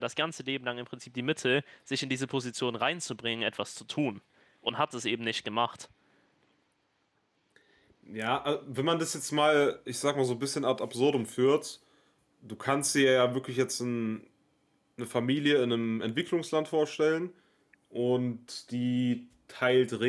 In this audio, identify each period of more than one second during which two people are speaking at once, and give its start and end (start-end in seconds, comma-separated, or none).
none